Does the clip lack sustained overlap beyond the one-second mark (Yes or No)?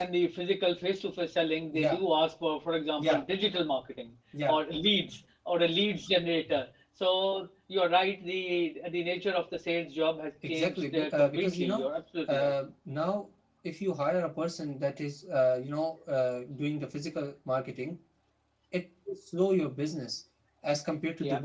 No